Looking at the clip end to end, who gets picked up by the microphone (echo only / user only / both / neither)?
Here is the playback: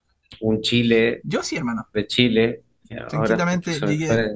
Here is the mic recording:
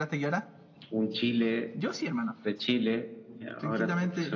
echo only